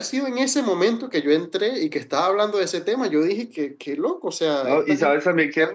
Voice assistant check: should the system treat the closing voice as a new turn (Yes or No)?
Yes